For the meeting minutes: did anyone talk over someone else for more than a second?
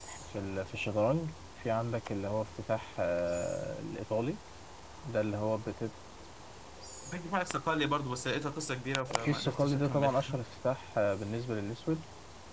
Yes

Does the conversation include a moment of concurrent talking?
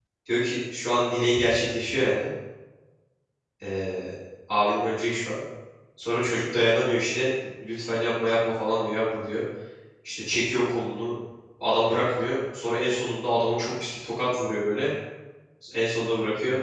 No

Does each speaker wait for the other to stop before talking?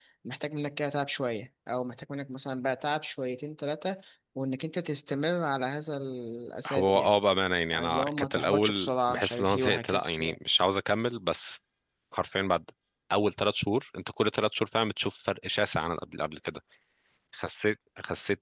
No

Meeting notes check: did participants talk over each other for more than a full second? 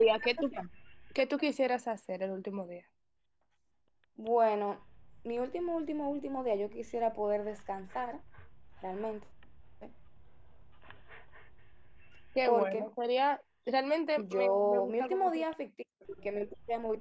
Yes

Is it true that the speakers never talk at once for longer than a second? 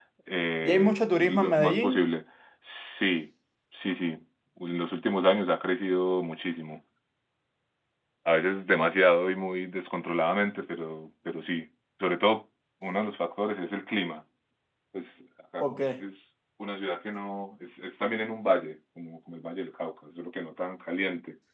No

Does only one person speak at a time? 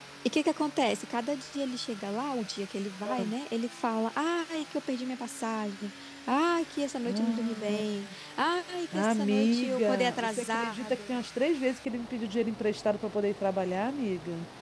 No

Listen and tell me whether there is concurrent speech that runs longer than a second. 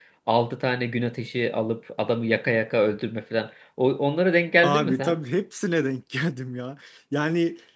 No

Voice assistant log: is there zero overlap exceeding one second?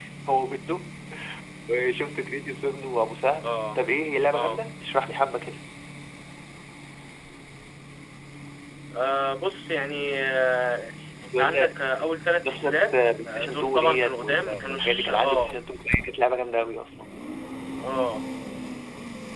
No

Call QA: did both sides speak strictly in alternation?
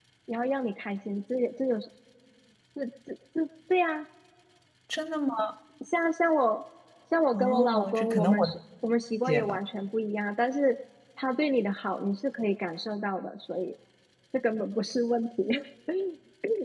No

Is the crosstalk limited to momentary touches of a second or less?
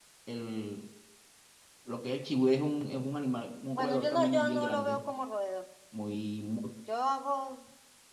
No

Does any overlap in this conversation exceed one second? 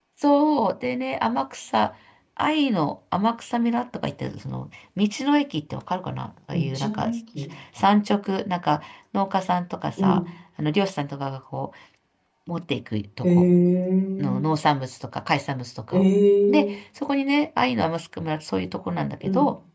No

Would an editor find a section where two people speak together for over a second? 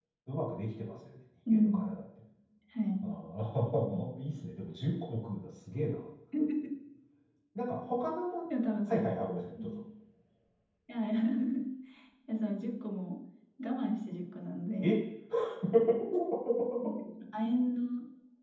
No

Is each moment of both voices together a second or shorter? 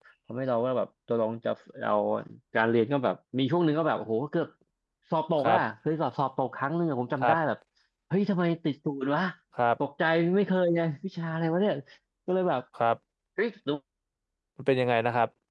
Yes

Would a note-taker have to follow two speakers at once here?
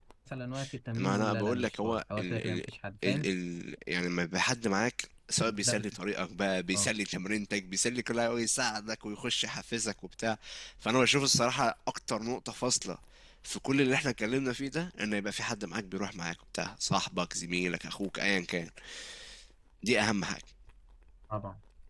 Yes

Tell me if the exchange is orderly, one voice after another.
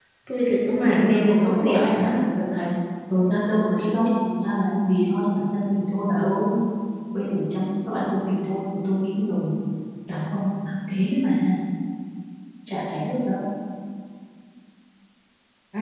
No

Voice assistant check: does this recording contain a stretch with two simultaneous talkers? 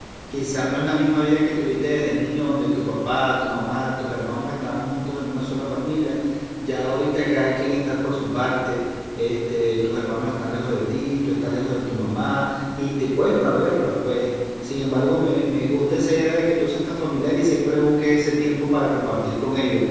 No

